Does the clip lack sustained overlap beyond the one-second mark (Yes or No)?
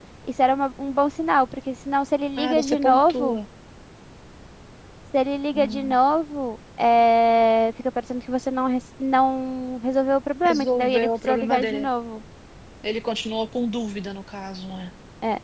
No